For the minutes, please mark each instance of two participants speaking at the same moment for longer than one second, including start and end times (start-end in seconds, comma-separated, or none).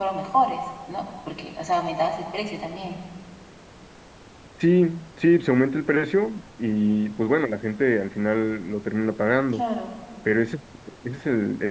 none